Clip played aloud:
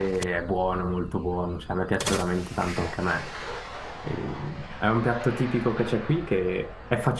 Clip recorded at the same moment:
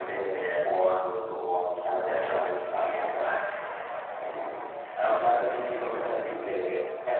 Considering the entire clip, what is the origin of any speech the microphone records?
echo only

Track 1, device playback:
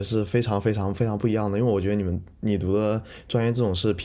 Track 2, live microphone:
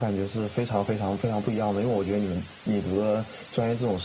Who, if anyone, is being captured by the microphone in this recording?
echo only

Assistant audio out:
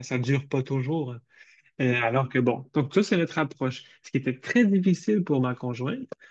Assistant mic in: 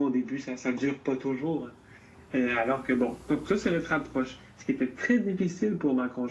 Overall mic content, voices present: echo only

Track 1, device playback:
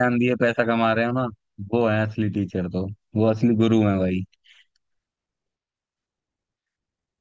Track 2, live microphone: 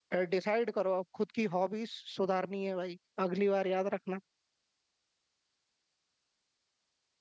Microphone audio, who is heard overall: user only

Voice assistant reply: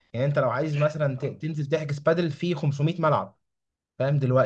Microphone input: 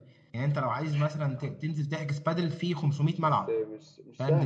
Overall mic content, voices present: both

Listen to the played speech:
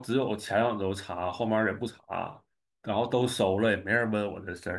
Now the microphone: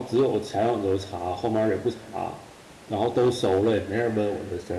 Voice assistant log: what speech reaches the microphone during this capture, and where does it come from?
echo only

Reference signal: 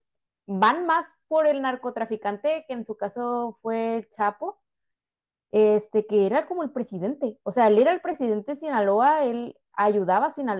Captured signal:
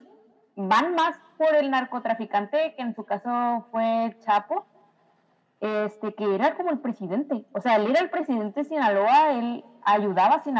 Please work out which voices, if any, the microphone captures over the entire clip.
echo only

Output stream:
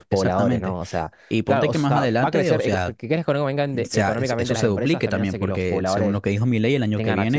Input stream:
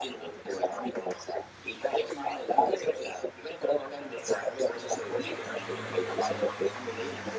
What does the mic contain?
echo only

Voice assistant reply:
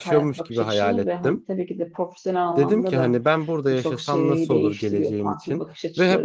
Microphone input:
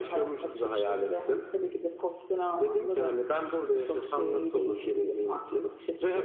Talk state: echo only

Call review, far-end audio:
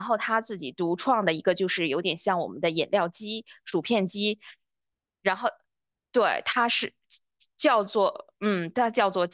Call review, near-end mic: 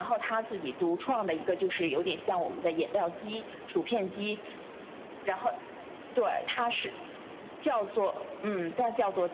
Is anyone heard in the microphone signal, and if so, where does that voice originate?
echo only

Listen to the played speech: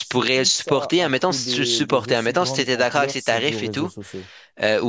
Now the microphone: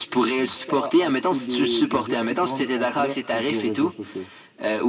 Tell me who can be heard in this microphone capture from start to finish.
echo only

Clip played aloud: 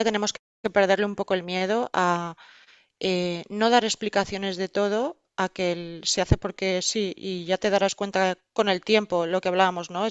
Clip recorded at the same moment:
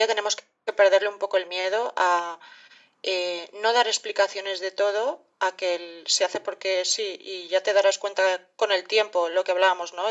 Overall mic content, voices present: echo only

